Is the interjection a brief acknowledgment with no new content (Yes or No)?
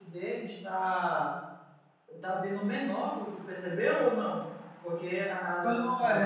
No